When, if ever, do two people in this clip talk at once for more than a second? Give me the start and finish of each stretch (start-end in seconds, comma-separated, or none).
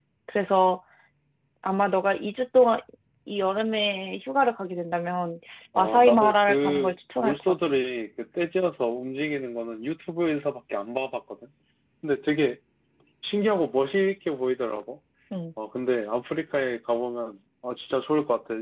5.8-7.7